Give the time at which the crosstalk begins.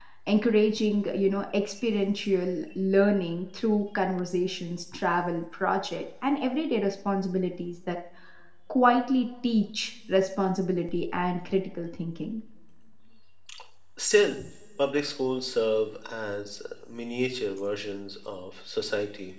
none

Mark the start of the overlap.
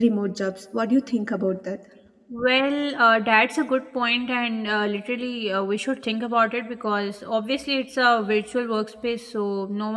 none

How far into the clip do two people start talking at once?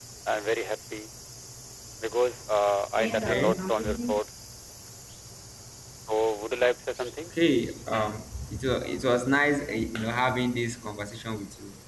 3 s

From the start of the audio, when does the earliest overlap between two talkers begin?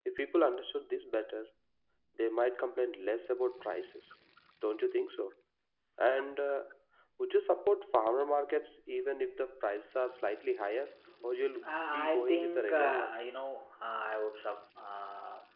12 s

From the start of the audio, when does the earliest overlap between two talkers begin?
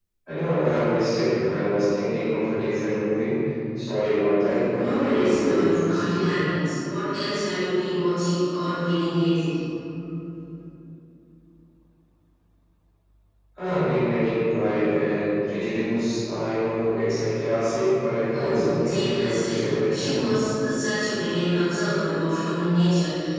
5 s

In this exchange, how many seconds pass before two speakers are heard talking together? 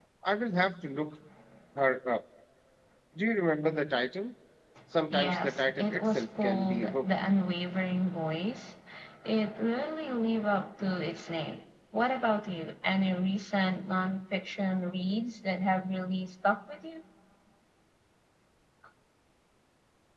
5 s

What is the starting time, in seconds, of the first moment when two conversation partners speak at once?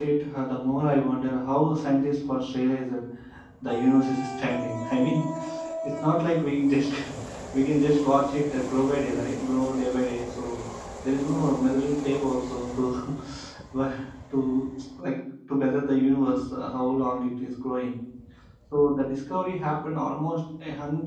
none

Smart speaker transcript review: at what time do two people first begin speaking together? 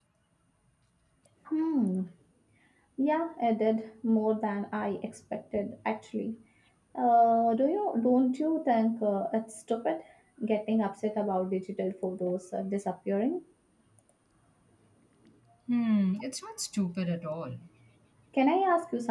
none

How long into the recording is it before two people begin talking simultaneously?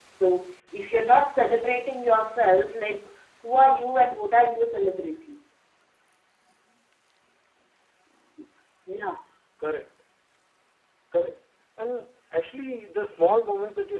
none

